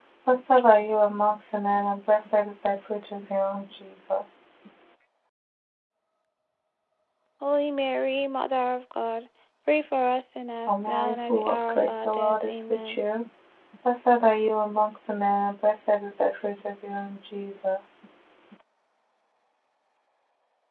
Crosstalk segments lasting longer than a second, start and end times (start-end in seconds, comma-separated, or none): 10.7-13.0